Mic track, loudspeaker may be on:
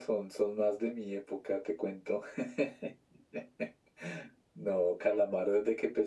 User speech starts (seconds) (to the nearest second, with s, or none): none